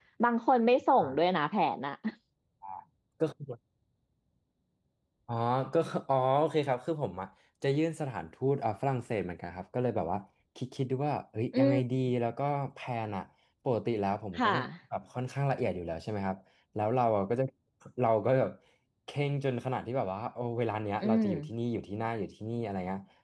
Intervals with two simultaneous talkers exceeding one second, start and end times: none

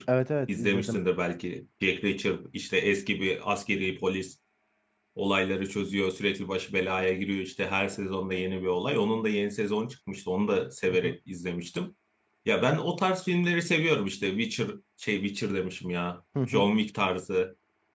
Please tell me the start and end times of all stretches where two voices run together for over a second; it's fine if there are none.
none

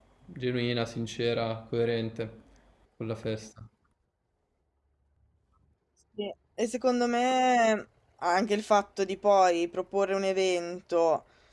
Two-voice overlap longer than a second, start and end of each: none

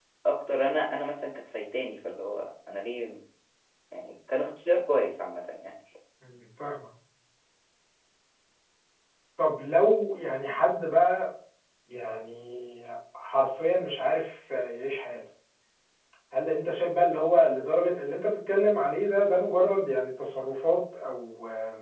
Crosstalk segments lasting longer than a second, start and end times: none

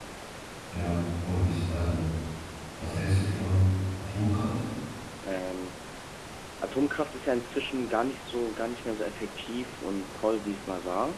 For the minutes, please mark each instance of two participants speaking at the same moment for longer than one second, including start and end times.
none

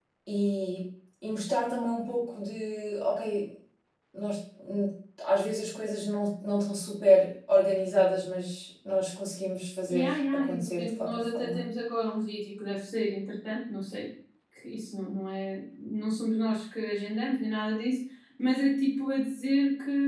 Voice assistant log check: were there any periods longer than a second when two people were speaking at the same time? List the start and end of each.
9.9-11.6

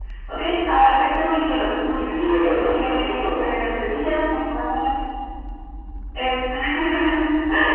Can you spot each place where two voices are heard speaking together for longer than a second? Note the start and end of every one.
1.9-3.3

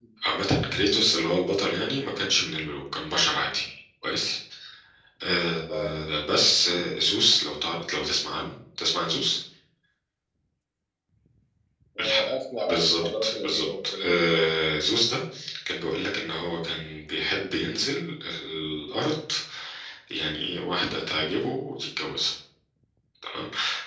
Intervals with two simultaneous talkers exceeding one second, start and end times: 12.7-14.2

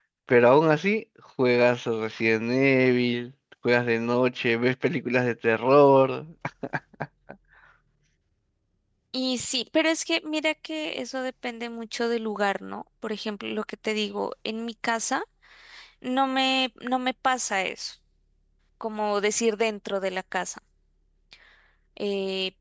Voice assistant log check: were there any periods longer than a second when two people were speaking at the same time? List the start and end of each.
none

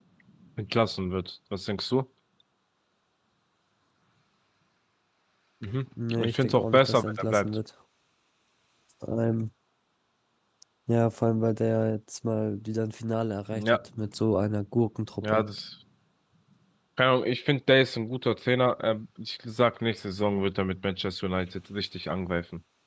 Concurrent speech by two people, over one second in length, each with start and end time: 6.2-7.5

